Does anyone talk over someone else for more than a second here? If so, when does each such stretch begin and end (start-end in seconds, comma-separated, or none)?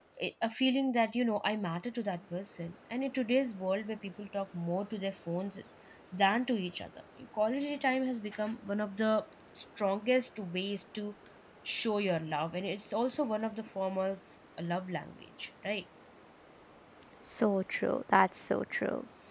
none